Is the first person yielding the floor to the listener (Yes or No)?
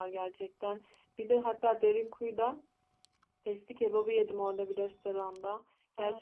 No